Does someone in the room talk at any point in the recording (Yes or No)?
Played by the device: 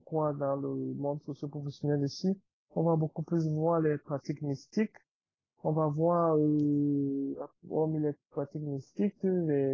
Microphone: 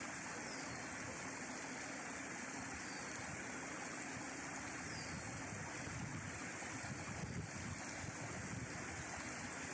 No